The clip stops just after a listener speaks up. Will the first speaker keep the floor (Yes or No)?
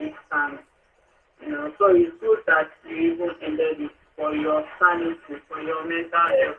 No